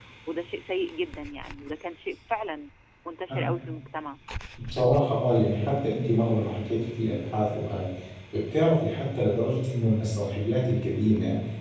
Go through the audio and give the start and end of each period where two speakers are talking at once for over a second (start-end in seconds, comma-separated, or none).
none